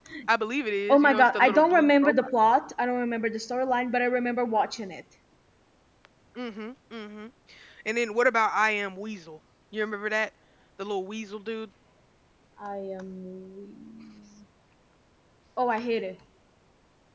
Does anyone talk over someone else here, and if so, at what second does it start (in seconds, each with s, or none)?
0.9 s